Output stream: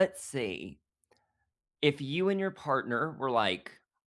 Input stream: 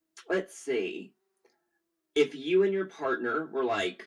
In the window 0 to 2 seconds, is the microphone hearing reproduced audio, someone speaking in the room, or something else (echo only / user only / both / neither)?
echo only